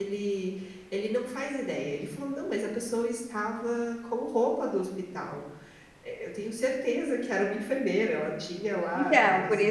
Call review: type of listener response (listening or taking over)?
taking over